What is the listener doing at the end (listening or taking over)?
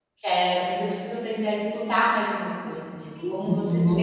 taking over